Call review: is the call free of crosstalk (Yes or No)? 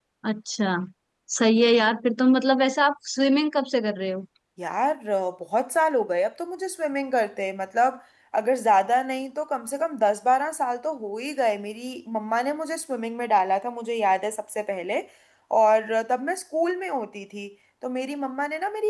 Yes